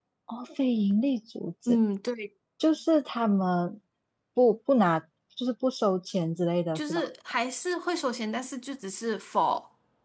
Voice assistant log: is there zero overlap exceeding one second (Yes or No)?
Yes